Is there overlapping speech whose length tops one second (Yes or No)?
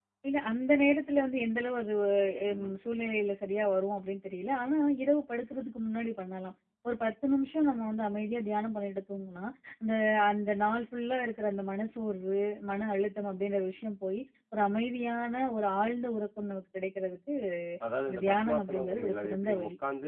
Yes